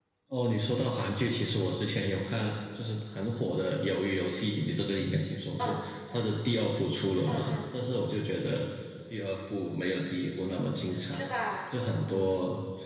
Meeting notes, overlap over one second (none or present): none